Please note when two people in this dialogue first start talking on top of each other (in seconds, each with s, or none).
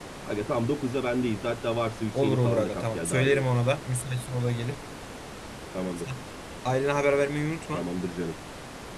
2.1 s